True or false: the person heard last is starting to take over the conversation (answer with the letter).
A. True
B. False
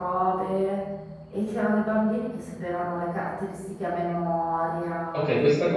A